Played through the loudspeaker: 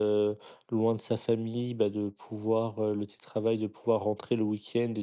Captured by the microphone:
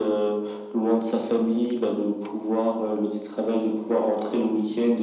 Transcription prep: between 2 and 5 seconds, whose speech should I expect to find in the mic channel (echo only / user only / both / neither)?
echo only